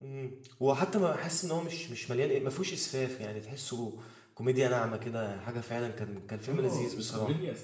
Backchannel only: No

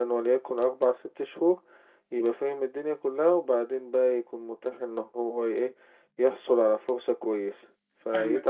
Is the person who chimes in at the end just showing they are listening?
No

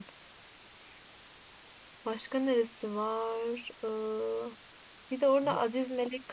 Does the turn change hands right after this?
No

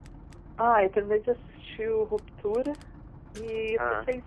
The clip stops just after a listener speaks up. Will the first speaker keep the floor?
Yes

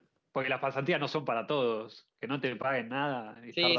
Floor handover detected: Yes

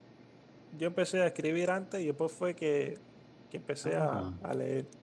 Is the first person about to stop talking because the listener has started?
No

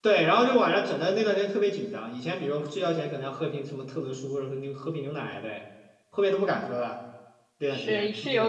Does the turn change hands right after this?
Yes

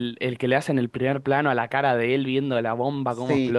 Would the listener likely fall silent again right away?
No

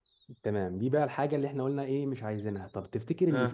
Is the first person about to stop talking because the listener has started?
No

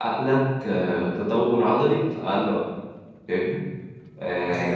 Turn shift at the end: Yes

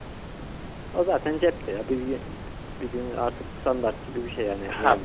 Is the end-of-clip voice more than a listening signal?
Yes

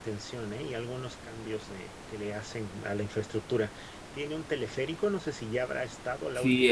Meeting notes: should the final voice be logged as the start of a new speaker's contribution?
Yes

